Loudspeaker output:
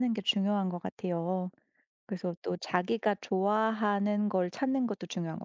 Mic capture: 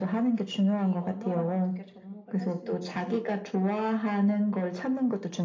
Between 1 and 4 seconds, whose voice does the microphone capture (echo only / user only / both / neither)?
both